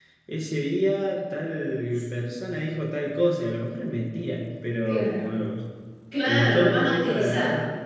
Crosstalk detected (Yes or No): Yes